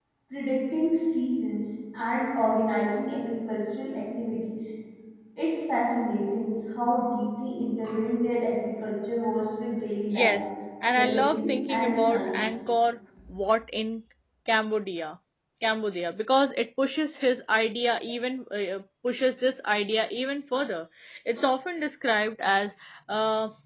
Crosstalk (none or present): present